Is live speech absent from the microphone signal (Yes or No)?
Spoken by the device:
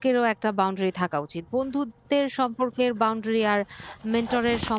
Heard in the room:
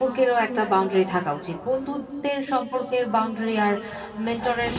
Yes